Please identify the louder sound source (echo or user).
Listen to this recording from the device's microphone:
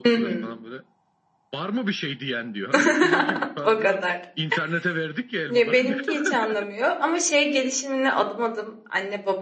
user